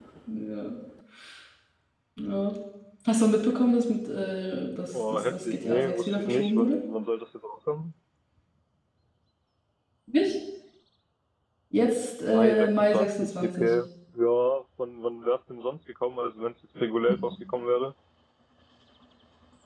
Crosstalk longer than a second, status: present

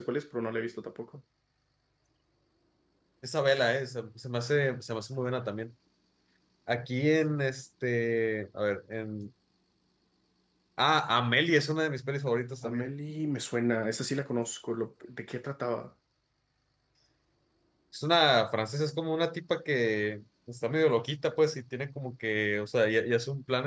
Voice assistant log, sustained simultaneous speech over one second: none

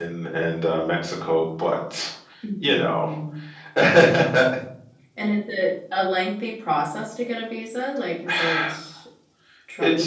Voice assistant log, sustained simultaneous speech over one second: none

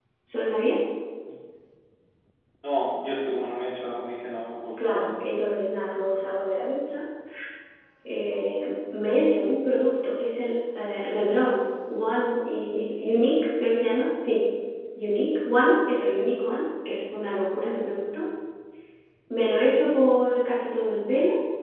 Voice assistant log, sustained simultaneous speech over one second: none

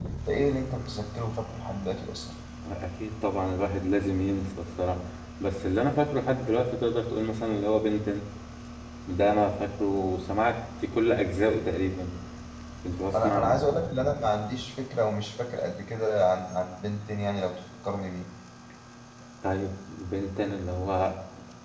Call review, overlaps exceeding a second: none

